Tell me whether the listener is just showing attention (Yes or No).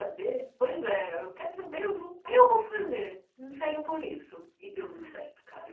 No